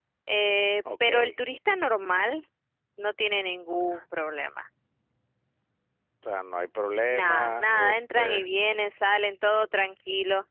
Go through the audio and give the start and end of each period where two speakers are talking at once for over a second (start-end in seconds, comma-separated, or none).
7.1-8.4